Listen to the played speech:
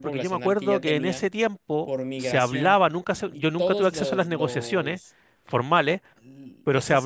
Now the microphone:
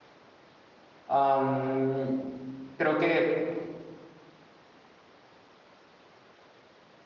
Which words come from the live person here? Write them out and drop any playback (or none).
Am, creo que...